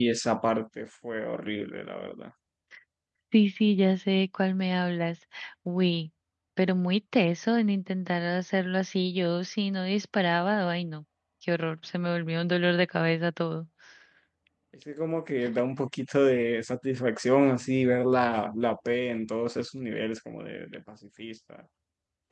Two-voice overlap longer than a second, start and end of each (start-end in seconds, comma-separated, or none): none